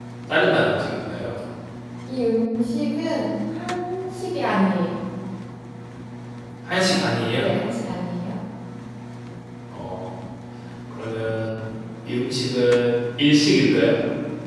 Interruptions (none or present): none